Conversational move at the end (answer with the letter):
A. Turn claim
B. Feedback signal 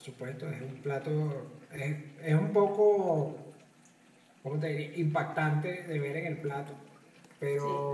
B